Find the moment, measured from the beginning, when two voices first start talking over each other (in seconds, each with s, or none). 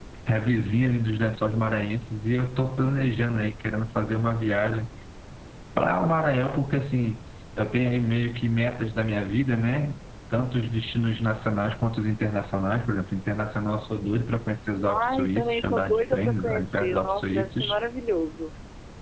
14.9 s